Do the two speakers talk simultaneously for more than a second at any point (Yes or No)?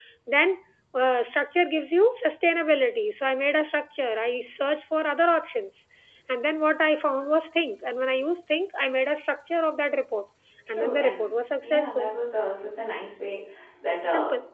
Yes